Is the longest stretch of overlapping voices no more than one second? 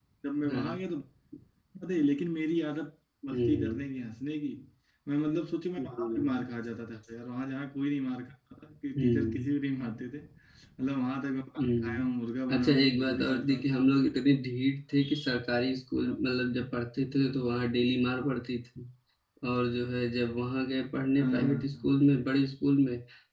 No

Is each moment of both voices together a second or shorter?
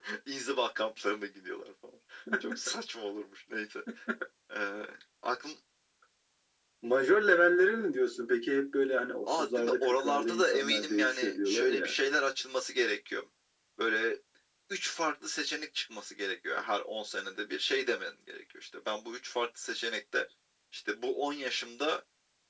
No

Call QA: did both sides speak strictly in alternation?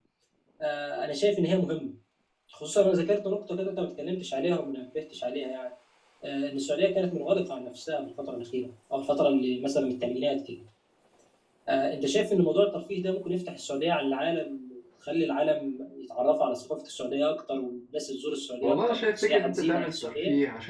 No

